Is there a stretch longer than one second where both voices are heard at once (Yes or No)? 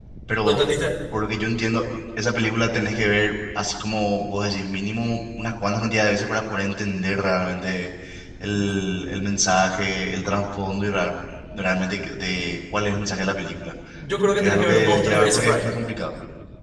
Yes